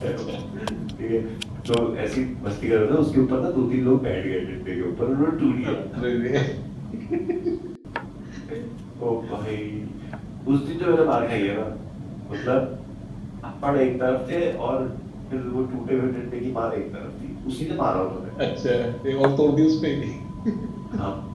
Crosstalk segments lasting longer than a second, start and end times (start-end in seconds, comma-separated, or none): none